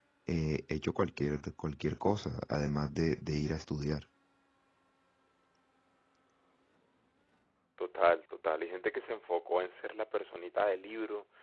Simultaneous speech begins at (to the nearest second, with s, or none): none